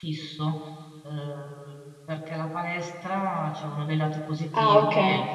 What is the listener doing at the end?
listening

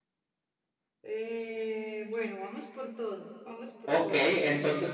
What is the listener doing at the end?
taking over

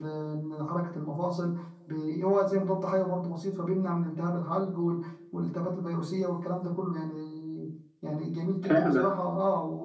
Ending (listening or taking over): listening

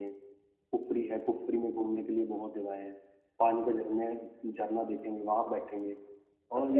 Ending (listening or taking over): taking over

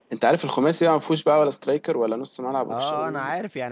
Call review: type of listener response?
taking over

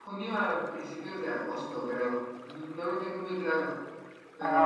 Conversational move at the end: listening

